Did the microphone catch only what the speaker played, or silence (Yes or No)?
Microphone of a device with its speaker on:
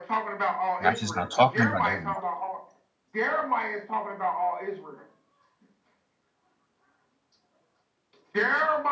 No